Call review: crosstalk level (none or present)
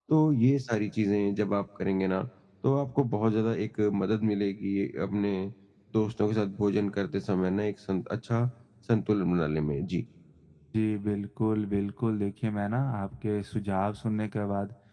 none